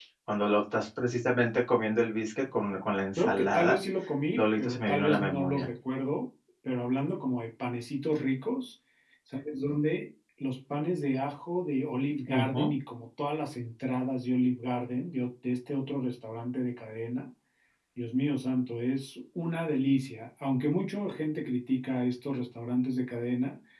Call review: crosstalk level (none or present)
present